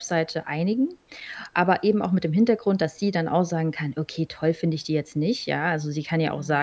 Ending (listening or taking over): listening